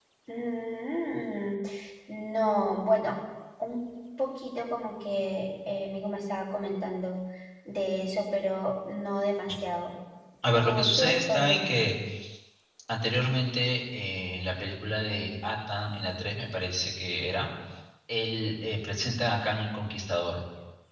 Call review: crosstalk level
present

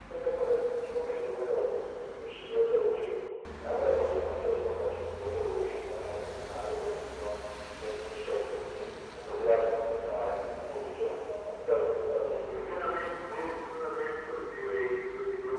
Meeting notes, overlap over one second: none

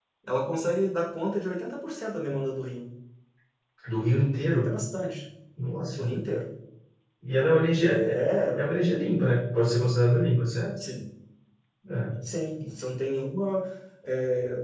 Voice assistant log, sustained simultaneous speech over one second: none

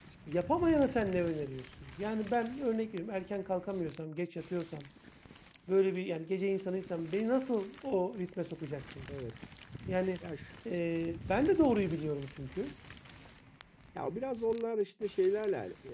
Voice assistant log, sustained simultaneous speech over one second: none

